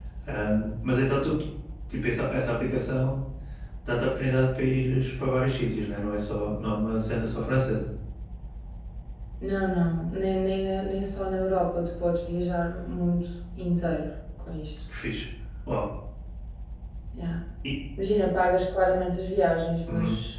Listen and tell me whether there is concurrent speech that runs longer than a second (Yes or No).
No